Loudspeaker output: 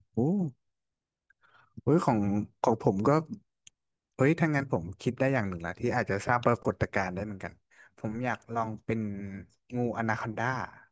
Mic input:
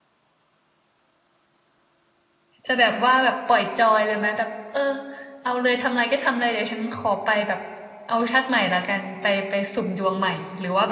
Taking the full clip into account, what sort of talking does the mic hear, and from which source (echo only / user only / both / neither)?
user only